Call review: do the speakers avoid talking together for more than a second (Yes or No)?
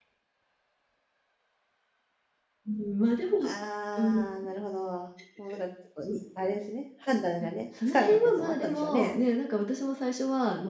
No